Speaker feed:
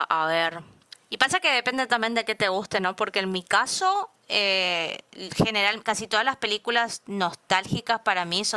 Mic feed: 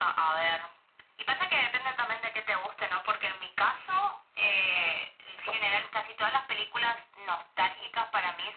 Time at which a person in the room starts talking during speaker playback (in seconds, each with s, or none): none